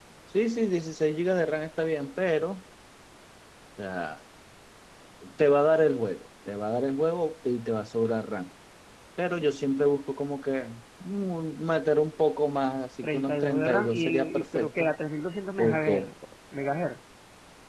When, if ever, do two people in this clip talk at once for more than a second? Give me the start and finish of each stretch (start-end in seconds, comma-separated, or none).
13.0-14.9